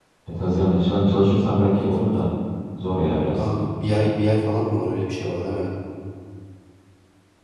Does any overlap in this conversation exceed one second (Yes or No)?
No